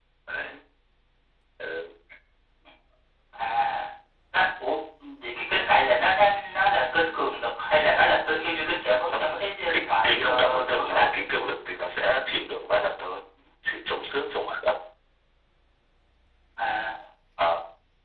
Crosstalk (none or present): present